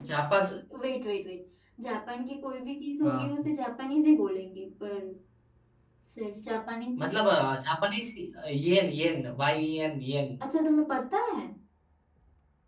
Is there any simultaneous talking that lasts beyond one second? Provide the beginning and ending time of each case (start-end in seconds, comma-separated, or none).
none